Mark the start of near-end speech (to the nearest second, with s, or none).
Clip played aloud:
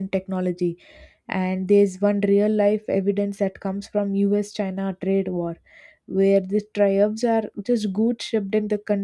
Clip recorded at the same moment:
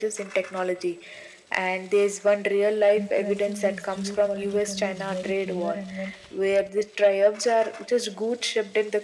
3 s